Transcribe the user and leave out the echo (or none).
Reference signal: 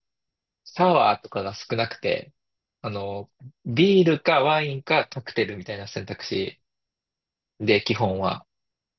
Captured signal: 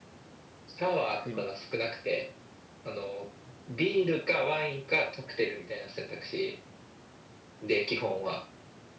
くり。